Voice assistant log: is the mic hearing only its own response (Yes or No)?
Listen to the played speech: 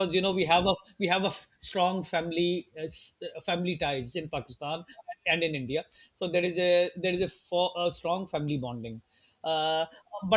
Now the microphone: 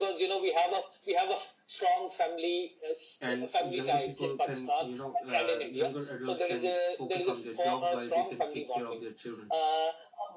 No